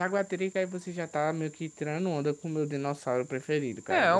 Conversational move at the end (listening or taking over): taking over